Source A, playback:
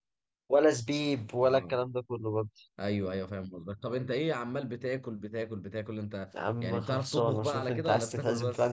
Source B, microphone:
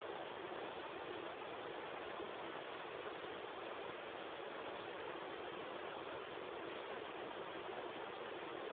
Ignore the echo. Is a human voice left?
No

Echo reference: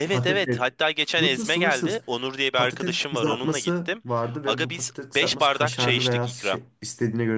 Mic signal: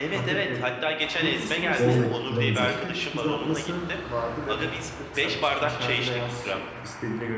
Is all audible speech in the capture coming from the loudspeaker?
No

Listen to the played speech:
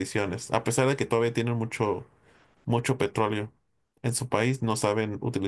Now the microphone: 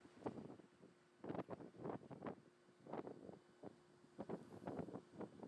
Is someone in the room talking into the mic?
No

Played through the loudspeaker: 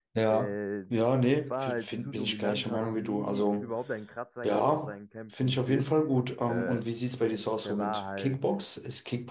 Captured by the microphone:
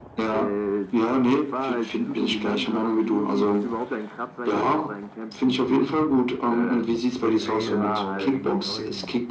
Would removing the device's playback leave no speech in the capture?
No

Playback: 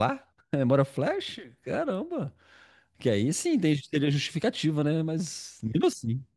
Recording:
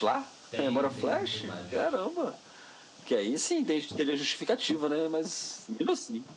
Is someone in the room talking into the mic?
Yes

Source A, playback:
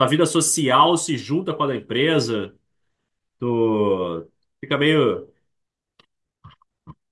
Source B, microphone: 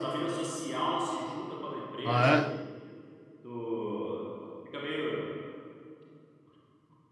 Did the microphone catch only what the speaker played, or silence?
No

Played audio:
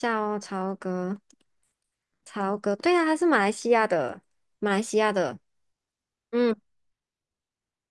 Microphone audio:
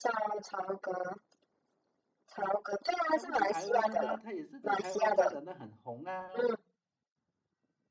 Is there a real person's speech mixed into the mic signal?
Yes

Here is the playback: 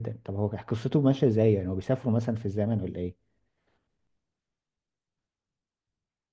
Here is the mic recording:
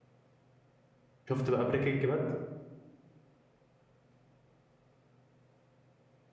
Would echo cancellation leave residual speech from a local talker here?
Yes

